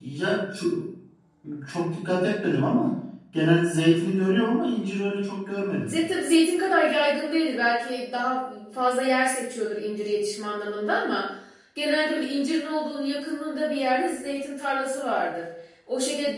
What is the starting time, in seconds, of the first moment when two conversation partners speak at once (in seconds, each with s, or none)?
none